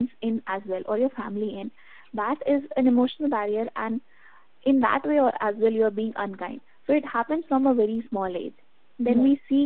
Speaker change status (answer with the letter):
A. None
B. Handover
A